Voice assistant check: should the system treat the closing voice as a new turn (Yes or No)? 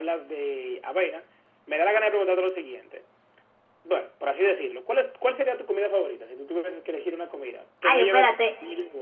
Yes